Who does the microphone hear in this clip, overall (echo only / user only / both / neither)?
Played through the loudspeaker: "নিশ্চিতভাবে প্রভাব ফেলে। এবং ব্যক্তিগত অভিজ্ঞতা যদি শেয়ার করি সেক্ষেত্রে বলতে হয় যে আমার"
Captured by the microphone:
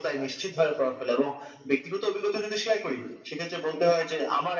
echo only